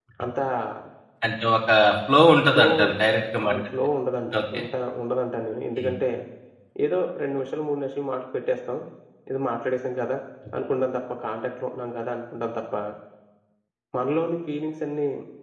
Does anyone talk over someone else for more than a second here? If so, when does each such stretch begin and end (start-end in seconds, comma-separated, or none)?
none